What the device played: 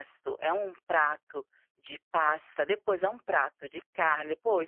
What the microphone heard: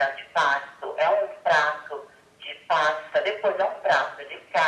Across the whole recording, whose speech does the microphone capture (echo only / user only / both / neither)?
echo only